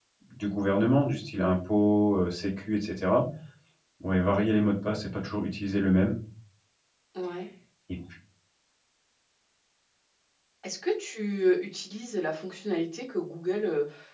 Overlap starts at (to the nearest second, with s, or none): none